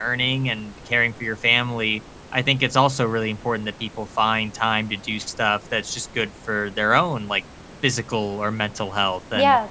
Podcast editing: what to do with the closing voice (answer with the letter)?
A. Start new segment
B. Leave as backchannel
A